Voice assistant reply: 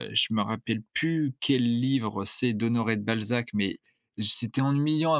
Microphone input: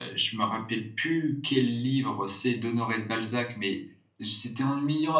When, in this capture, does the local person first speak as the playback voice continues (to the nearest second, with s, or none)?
none